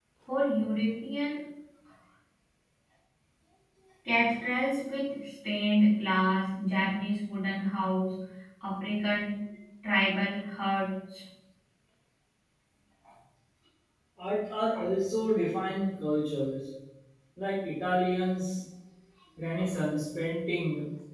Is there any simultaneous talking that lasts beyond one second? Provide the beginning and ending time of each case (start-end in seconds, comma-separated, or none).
none